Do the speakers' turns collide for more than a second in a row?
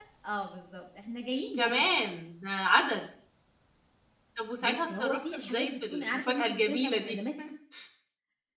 Yes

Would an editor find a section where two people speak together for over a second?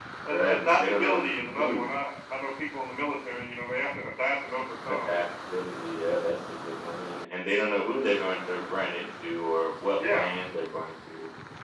Yes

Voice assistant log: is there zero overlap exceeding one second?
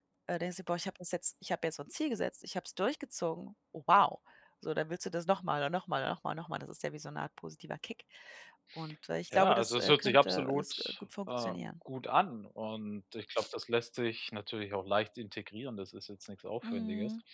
No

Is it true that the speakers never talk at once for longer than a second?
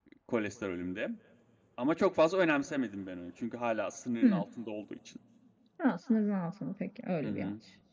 Yes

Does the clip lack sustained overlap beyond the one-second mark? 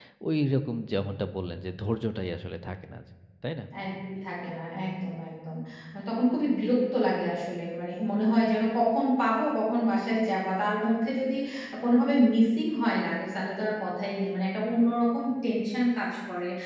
Yes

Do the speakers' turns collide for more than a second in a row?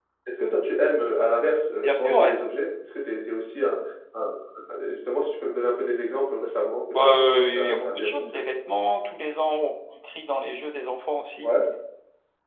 Yes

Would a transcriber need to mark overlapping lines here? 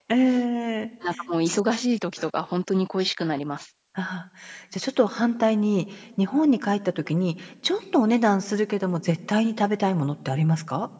No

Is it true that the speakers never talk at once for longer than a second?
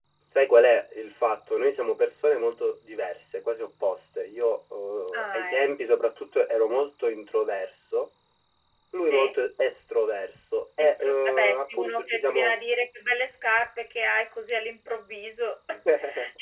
No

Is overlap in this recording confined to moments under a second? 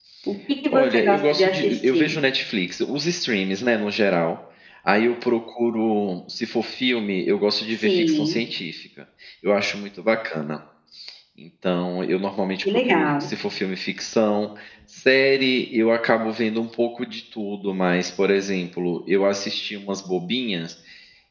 No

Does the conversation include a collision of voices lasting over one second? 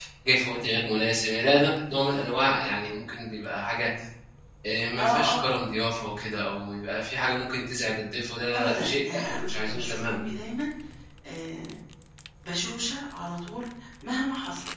Yes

